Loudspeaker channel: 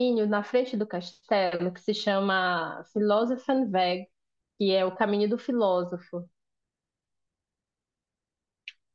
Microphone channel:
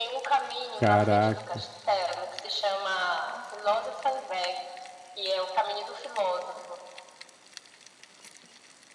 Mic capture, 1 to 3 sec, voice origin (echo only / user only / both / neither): both